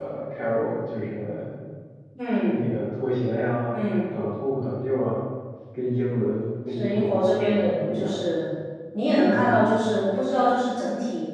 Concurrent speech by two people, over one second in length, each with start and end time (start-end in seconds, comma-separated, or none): 6.7-8.2